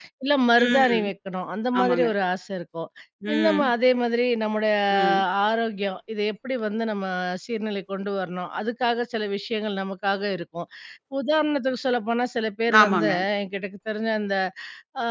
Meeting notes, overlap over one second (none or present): none